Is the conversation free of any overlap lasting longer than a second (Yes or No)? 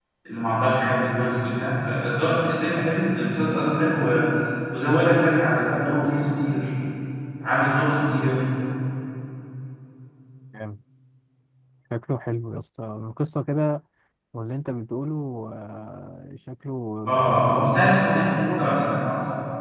No